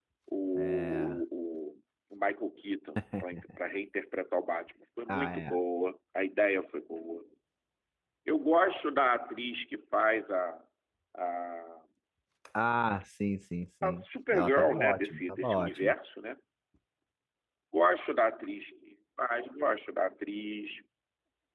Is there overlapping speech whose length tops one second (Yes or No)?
Yes